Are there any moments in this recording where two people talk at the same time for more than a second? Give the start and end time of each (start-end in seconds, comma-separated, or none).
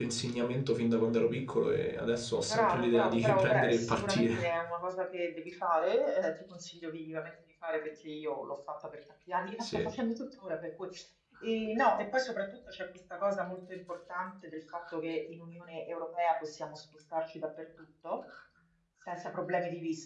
2.5-4.5